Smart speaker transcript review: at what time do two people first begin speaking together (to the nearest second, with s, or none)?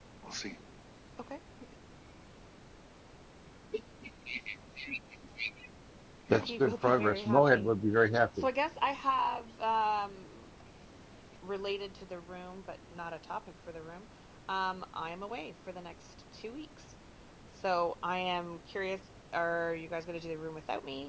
6 s